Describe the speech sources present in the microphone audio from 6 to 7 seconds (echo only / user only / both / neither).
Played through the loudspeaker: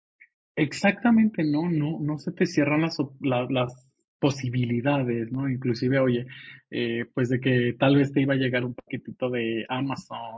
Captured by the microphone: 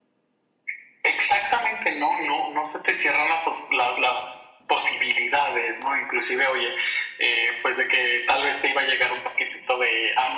echo only